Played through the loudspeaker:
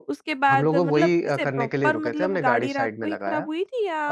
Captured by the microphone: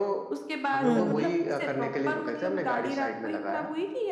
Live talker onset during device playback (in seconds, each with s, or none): 0.8 s